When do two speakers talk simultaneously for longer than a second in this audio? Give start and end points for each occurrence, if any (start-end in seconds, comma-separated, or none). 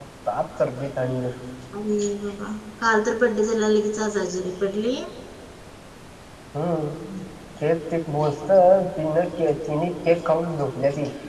none